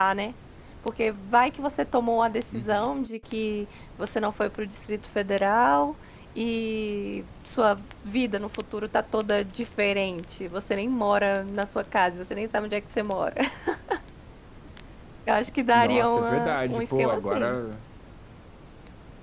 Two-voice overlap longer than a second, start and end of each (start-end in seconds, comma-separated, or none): 15.7-17.6